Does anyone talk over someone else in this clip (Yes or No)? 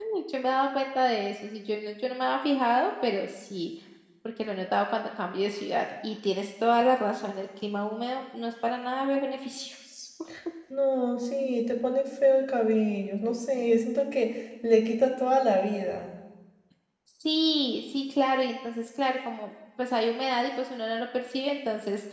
No